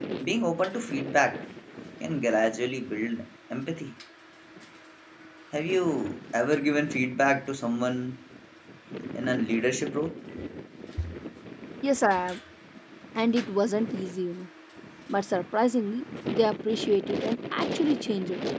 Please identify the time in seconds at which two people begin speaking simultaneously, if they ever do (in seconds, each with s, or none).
none